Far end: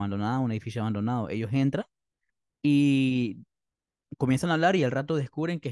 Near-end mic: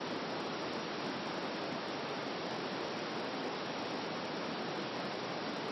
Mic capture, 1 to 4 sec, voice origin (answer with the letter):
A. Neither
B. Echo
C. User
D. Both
A